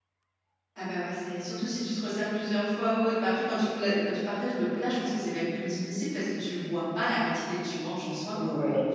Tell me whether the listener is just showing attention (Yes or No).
No